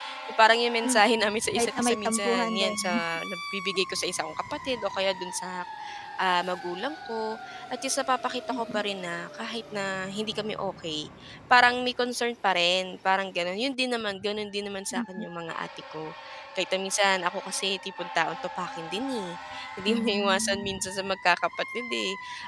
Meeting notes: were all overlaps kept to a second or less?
No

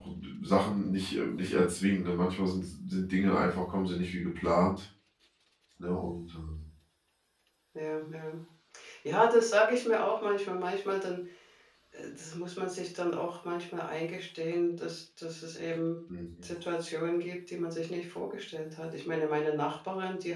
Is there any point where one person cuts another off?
No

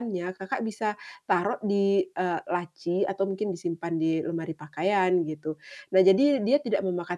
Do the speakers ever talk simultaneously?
No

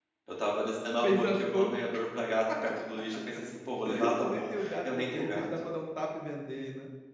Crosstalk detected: Yes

